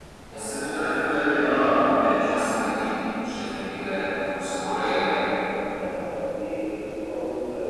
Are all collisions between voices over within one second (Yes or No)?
Yes